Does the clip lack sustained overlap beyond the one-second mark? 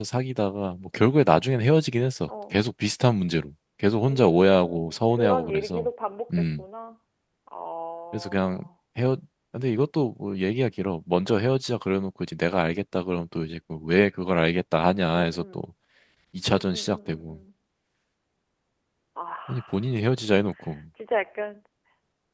No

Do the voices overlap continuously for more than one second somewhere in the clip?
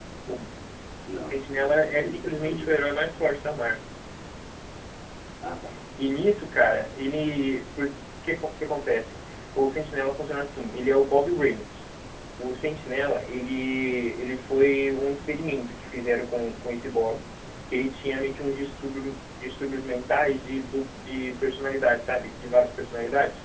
Yes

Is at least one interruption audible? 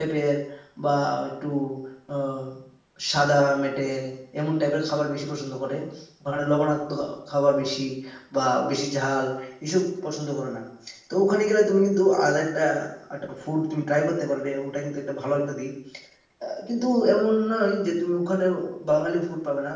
No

